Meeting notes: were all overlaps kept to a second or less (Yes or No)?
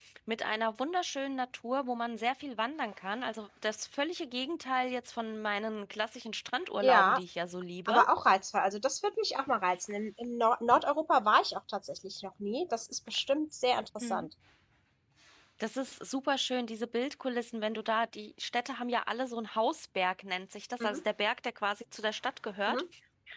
Yes